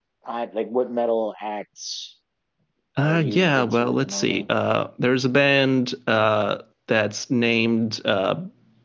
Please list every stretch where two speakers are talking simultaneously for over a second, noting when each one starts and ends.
3.0-4.4

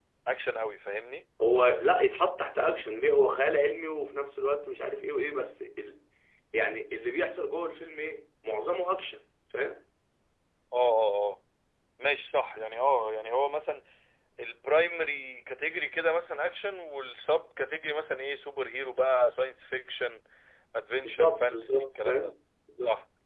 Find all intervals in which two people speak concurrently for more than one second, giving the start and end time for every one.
21.1-22.3

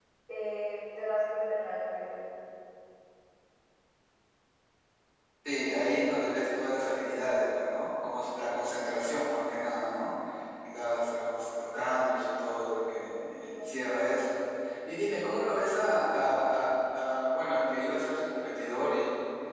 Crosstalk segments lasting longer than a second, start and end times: none

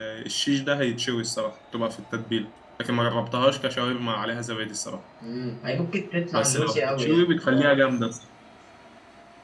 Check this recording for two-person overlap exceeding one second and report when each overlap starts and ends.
6.3-7.7

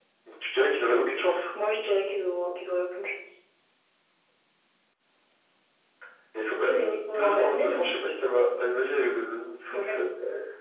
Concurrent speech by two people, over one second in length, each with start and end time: 6.6-7.9

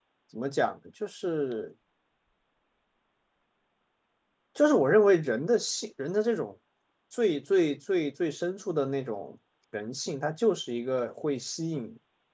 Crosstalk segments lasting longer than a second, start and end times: none

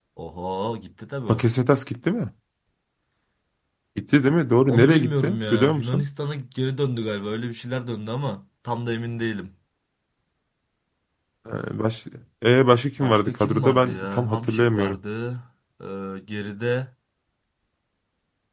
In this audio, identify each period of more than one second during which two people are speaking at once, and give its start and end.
4.7-6.0, 13.0-15.0

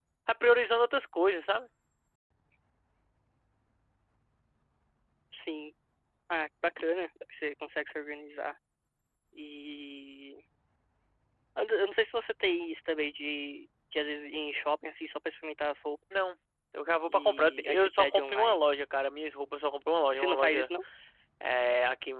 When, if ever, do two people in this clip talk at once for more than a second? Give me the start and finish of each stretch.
17.1-18.6

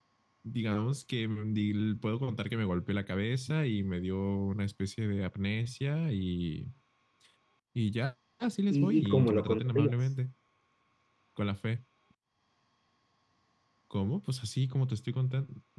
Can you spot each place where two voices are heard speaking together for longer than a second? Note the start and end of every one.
8.7-9.9

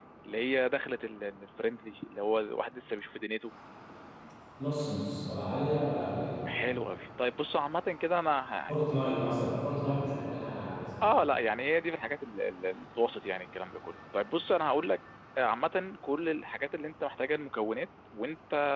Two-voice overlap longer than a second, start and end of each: none

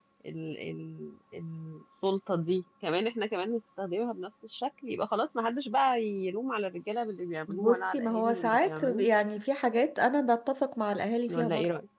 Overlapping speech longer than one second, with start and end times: 7.5-9.1

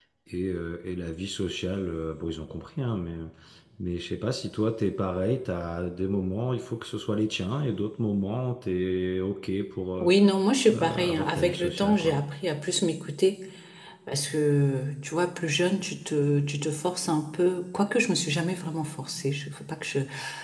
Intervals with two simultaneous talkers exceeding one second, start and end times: 10.7-12.2

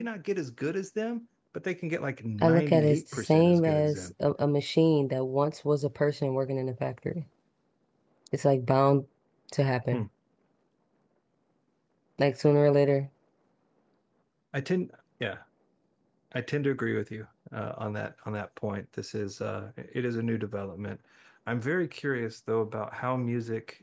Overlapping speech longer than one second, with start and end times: 2.4-4.1

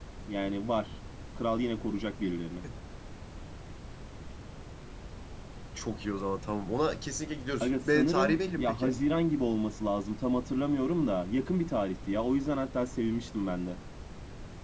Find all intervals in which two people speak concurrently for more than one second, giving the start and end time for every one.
7.6-9.0

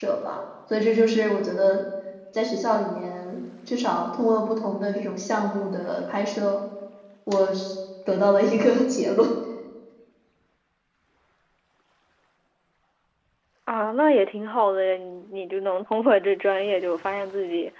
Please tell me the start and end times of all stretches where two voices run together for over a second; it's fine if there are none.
none

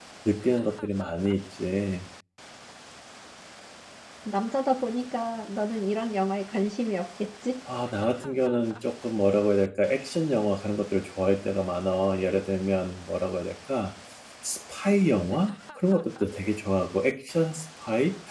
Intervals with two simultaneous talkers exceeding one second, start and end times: none

